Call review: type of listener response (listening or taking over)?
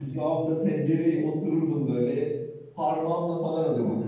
listening